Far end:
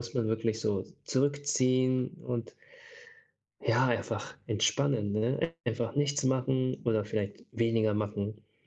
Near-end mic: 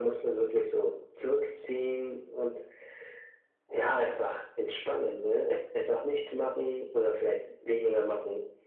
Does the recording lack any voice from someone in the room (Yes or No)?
Yes